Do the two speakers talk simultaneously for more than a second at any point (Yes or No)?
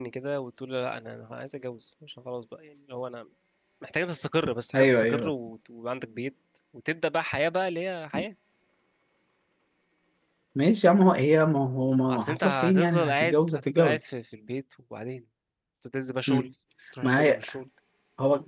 Yes